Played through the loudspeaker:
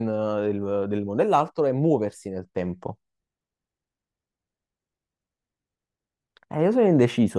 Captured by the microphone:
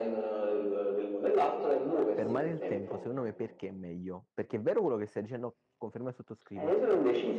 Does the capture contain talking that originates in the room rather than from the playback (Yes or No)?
Yes